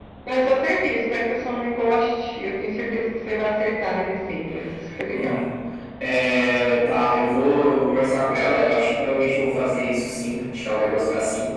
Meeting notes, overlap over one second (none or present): none